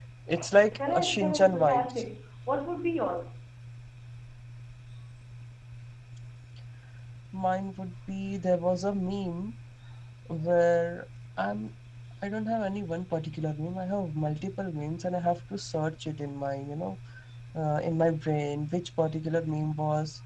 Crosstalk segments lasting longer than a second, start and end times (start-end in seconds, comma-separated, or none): 0.7-2.0